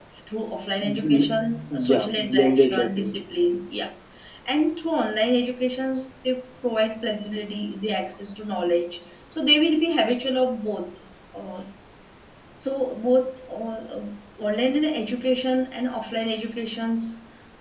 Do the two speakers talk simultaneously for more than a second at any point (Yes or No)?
Yes